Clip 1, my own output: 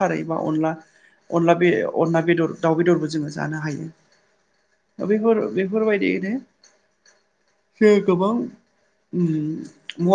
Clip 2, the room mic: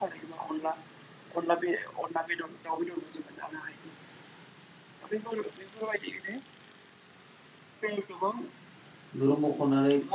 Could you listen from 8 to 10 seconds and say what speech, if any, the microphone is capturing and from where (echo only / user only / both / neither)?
both